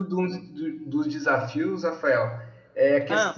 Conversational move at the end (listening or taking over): listening